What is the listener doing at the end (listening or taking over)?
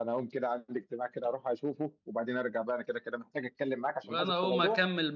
taking over